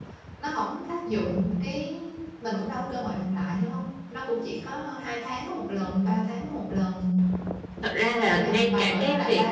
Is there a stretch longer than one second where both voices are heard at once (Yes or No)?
Yes